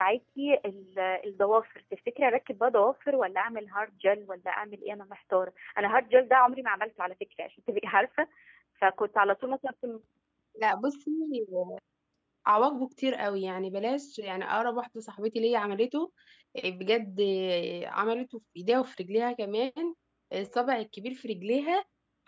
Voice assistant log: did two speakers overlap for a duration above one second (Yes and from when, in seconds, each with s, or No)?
No